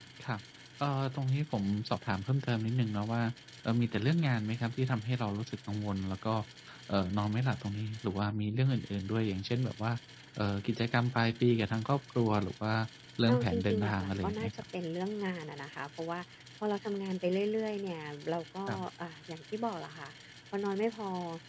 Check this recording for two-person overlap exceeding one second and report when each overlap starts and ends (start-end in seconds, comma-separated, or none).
13.3-14.5